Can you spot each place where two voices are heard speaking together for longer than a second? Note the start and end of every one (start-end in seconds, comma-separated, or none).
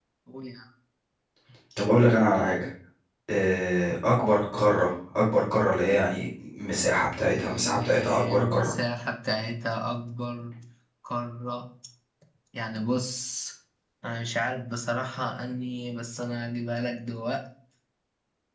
7.3-8.7